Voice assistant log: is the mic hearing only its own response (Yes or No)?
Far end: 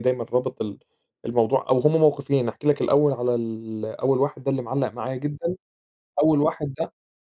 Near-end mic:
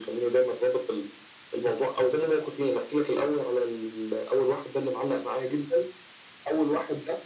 Yes